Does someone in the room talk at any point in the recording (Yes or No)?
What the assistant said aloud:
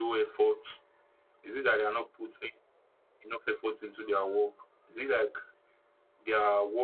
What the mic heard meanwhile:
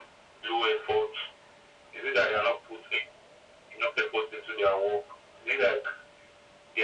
No